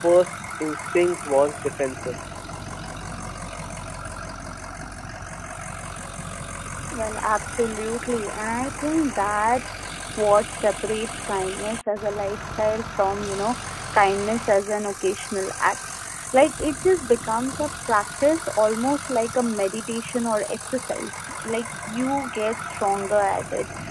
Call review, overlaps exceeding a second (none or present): none